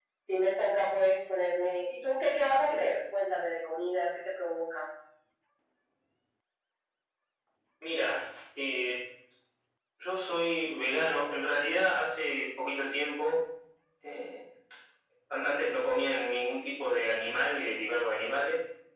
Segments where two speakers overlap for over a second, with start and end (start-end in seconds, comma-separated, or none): none